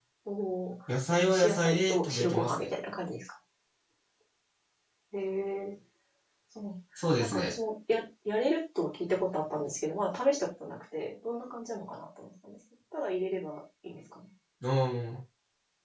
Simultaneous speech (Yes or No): Yes